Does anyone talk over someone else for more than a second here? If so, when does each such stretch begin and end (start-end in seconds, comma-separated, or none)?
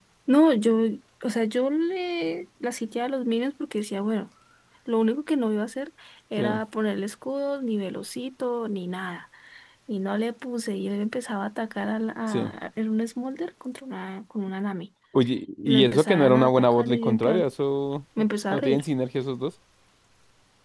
15.7-17.4